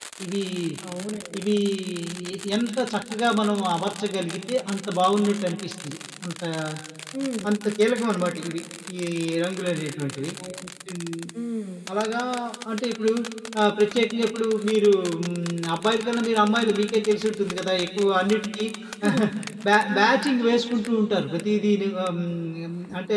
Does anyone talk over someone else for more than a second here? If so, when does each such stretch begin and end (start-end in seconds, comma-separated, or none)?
none